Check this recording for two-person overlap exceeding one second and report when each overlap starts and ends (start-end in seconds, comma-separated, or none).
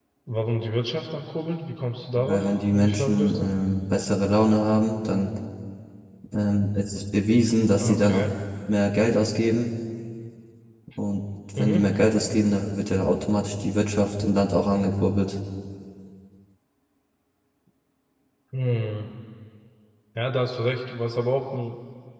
2.1-3.5